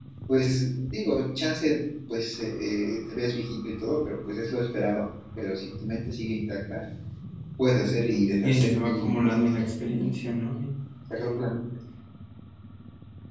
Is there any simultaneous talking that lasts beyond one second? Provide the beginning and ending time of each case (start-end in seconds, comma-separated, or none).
8.4-9.7